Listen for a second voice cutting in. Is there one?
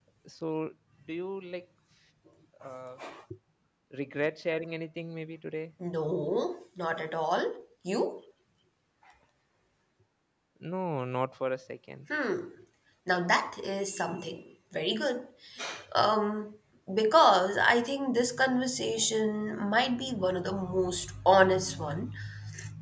No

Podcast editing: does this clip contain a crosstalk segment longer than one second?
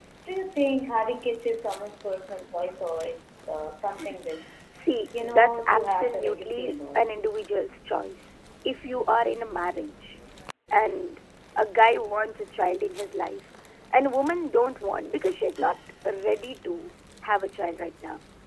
Yes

